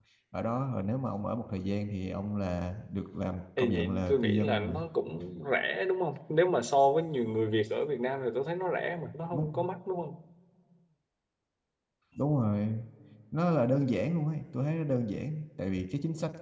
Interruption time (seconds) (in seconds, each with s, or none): 3.6 s